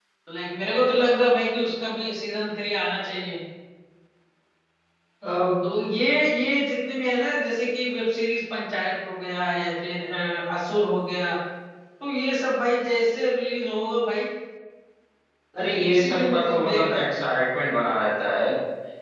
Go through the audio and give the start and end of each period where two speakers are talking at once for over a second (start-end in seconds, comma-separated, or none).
15.9-17.1